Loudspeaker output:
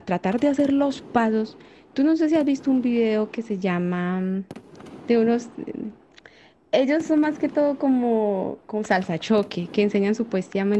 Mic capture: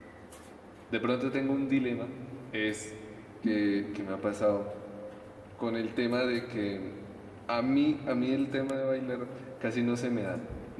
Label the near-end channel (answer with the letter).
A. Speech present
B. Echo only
A